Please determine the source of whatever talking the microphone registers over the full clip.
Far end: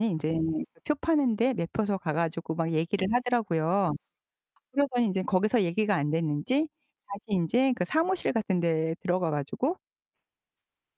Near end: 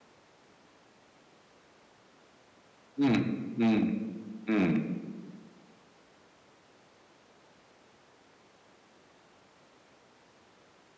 user only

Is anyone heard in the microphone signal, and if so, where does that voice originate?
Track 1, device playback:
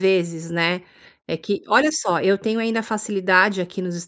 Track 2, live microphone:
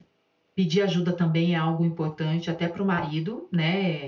user only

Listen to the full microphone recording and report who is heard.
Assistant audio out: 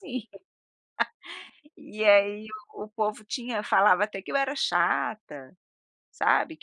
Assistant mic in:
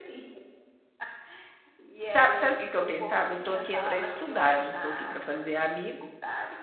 both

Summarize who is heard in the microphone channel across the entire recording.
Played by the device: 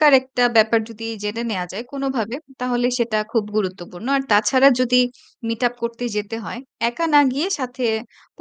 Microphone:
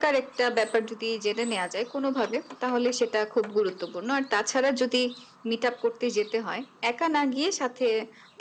echo only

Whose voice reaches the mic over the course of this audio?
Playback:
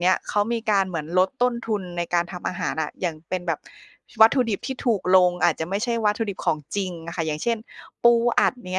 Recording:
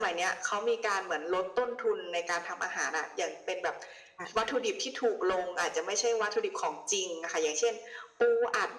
both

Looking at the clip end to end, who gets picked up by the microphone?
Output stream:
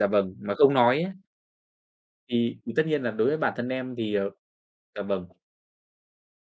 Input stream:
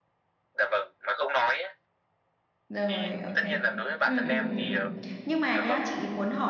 both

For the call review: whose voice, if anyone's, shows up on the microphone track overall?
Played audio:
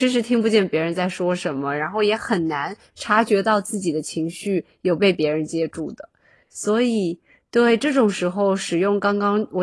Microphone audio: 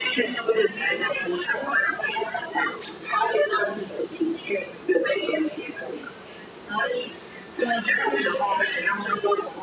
echo only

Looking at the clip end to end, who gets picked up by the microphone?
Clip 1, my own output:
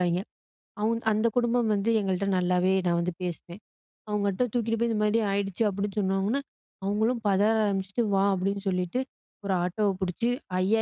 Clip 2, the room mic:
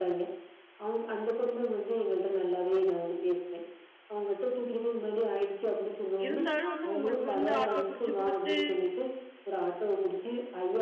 both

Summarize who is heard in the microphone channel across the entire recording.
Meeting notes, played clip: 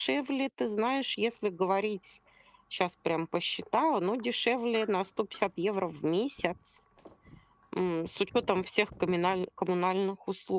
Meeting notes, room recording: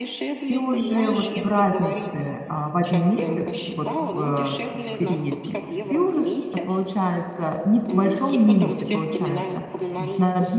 both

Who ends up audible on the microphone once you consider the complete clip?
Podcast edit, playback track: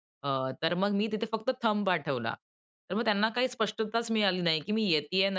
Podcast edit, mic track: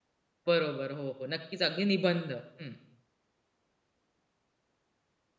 user only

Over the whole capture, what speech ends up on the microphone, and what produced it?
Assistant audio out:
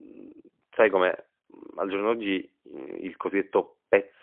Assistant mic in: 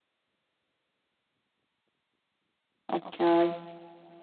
user only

